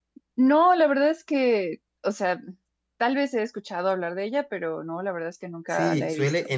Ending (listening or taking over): taking over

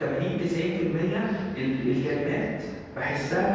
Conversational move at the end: taking over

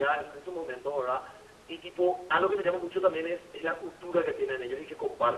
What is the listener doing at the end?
taking over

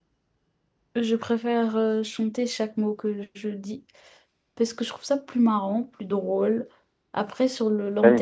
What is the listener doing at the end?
taking over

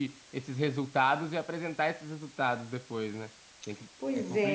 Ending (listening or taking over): taking over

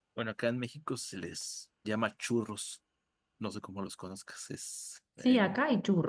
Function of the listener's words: taking over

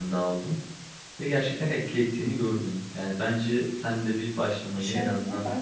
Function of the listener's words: taking over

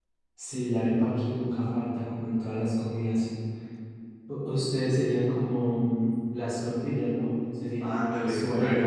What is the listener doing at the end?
taking over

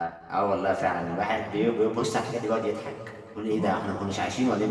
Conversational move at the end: listening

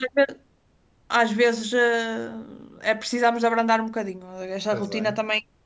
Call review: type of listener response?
listening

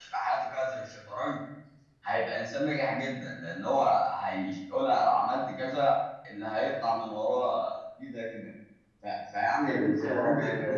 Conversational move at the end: taking over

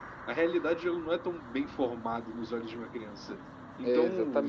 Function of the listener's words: listening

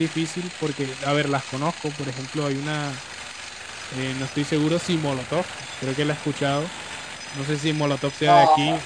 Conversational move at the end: listening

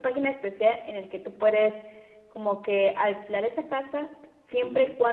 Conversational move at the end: listening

